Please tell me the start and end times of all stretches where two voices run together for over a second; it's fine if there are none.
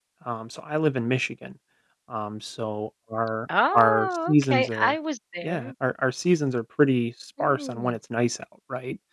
3.7-5.0

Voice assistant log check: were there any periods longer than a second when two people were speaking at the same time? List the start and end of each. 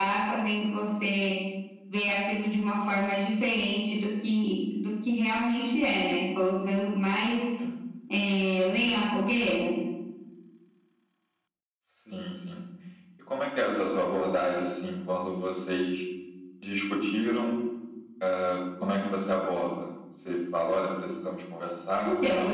none

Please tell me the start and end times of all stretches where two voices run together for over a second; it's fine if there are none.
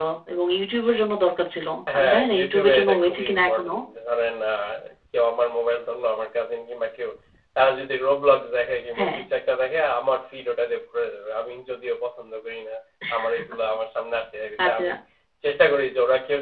1.9-3.7

